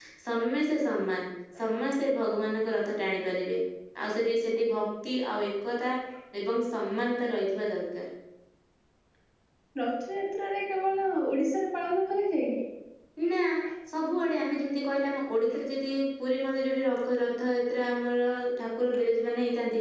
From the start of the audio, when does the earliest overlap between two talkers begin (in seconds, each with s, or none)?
none